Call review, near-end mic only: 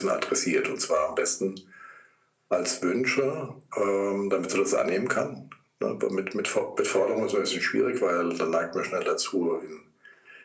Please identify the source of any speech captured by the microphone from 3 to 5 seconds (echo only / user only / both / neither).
echo only